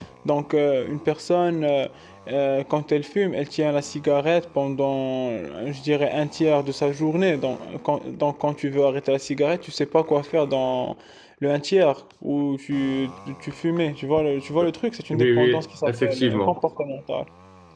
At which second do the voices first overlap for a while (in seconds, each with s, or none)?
15.1 s